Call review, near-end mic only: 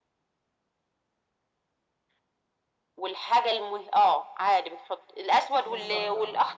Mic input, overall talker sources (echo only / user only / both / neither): both